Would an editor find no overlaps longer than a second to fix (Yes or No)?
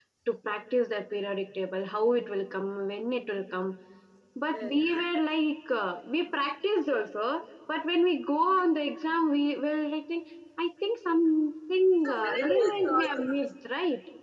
No